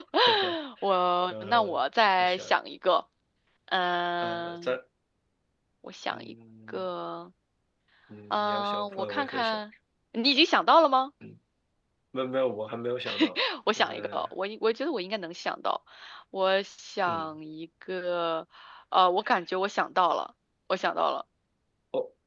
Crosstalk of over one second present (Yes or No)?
Yes